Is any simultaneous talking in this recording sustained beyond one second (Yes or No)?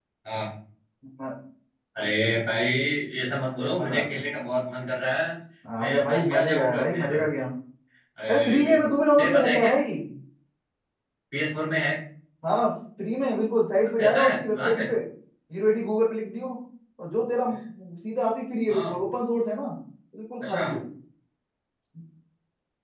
Yes